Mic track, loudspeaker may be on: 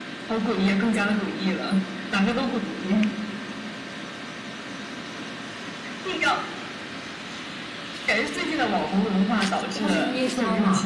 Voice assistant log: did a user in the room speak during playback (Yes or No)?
Yes